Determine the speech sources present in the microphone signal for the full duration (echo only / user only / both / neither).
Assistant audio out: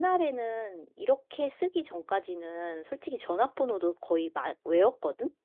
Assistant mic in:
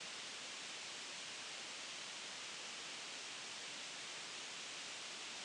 neither